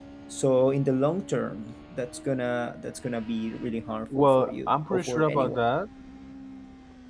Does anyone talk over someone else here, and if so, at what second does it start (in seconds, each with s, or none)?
4.1 s